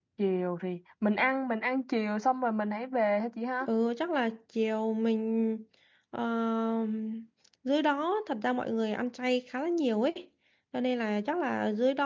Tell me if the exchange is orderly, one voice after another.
Yes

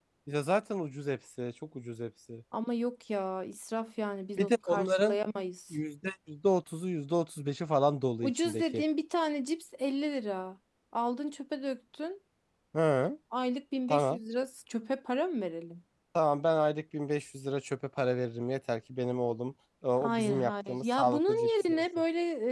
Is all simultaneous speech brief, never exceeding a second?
No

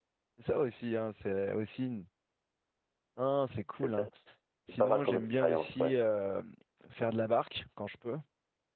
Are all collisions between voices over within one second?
No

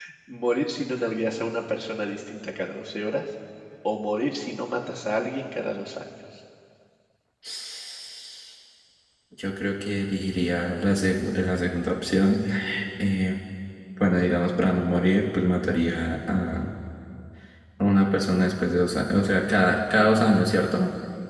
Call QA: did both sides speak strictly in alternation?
Yes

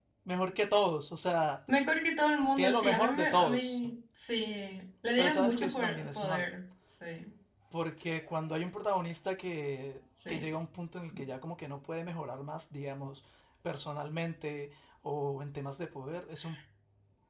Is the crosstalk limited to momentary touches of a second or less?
No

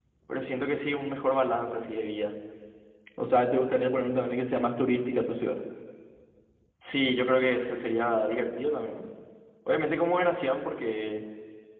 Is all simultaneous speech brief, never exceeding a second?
Yes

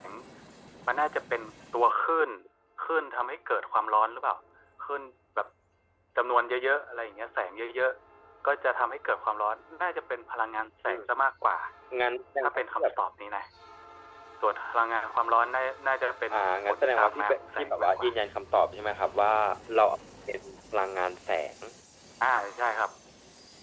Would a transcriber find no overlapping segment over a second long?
No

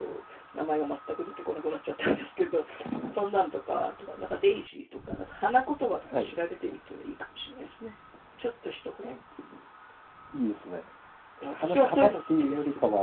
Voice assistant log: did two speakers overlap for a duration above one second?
Yes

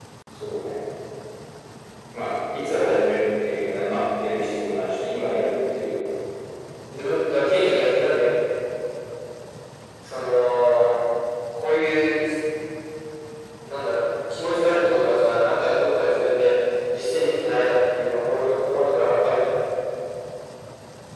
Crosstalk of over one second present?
No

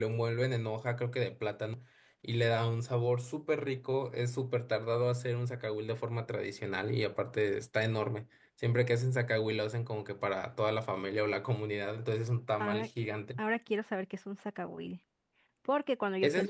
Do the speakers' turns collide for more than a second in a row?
No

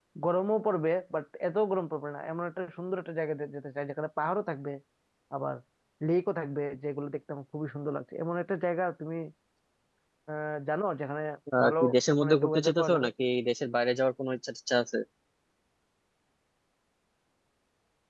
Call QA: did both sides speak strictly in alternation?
No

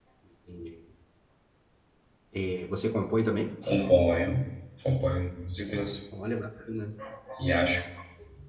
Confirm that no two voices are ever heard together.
Yes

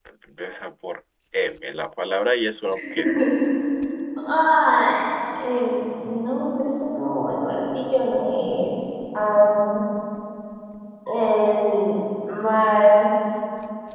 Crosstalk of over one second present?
No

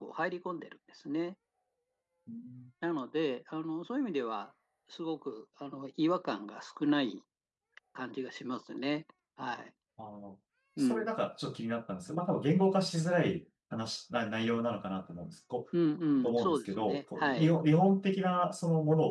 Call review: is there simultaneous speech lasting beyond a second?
Yes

